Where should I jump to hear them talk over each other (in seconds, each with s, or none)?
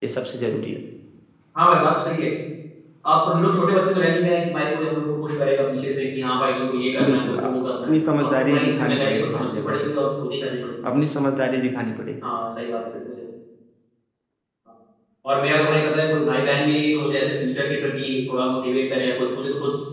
7.0 s